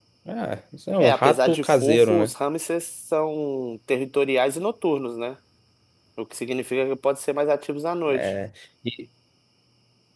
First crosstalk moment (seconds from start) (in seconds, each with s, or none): 1.0 s